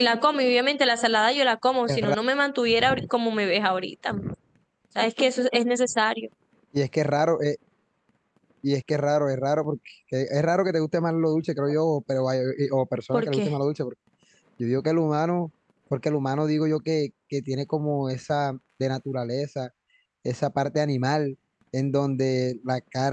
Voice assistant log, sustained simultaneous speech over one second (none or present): none